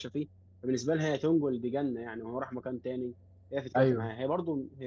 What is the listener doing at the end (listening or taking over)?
listening